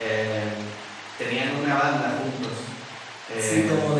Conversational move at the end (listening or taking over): taking over